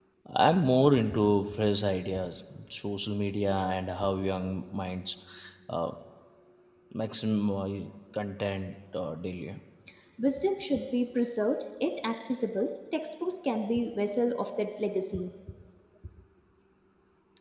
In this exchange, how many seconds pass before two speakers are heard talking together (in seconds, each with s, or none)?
none